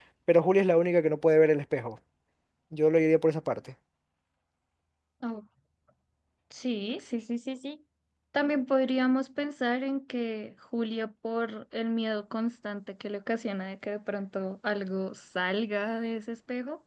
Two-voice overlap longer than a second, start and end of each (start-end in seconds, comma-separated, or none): none